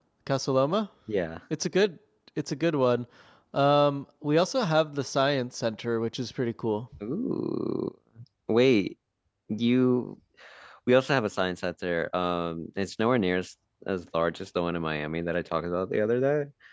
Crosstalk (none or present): none